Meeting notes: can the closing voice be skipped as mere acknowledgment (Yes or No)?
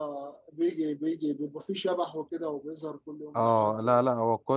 No